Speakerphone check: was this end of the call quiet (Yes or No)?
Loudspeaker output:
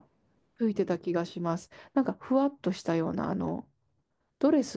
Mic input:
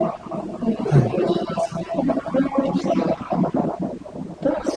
No